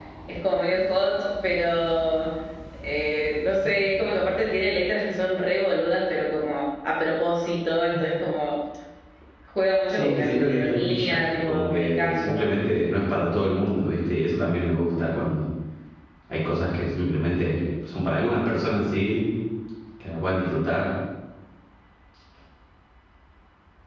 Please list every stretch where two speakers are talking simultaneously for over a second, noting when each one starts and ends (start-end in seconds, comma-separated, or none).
9.9-12.4